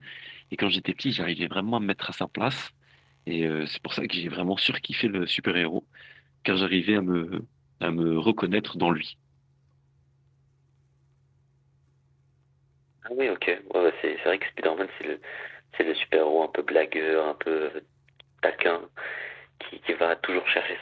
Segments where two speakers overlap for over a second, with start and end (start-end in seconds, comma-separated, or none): none